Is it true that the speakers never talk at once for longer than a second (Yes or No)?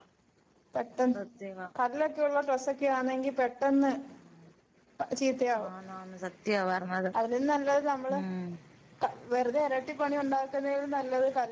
Yes